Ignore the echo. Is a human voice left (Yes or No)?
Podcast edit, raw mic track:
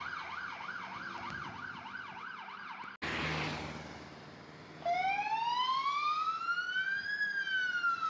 No